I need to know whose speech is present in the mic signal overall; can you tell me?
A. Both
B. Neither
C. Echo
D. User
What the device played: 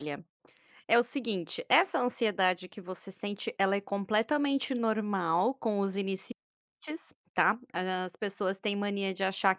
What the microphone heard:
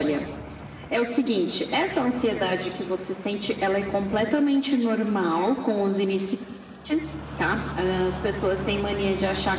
C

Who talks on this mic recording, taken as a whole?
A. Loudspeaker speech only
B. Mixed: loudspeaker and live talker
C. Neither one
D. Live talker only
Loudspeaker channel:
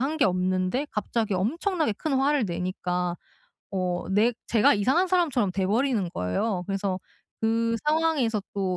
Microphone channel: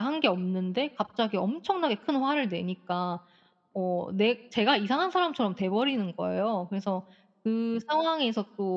A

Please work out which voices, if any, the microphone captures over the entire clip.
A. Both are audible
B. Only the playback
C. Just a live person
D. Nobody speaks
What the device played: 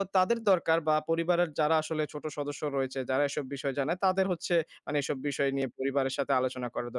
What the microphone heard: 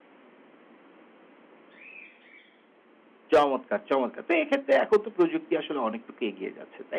C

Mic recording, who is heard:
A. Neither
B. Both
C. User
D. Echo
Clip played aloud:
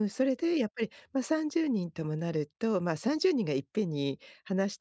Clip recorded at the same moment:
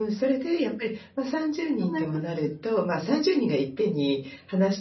B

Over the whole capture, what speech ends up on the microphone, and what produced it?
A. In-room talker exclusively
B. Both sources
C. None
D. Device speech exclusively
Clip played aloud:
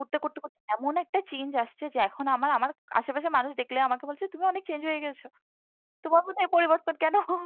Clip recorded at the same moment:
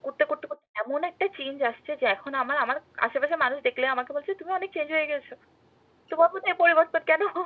D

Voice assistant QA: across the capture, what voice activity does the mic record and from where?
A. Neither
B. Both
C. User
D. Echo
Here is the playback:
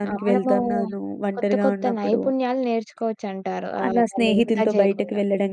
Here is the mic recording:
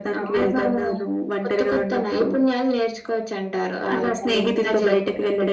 D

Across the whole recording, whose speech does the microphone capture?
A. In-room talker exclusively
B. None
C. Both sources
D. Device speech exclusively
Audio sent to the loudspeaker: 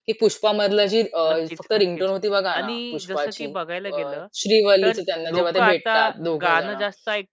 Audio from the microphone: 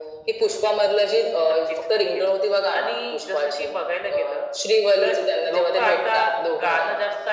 D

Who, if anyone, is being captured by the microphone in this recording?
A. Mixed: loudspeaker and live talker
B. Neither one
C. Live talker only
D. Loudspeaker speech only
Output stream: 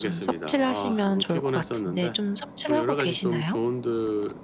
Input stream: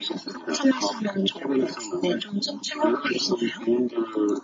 D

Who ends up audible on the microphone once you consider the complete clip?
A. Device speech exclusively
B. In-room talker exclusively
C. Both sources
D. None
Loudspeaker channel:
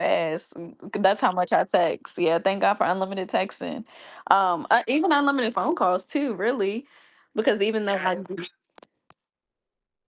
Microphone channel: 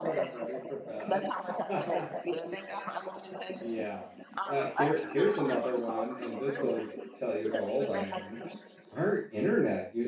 C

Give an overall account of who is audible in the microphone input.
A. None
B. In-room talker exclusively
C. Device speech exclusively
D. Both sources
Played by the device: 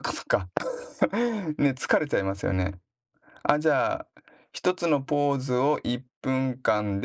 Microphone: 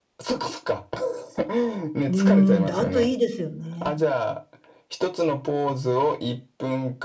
D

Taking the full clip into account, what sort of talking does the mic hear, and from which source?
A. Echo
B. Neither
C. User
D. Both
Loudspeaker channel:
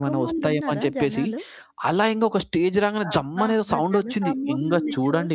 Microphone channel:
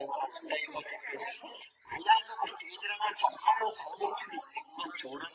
A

